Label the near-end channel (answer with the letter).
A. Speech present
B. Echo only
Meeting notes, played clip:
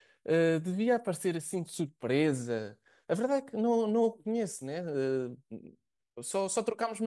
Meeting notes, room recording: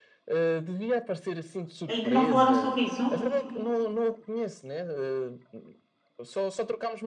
A